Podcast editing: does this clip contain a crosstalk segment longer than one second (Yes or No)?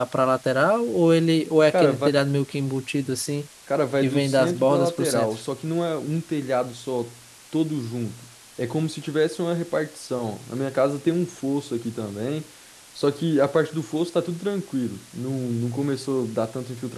Yes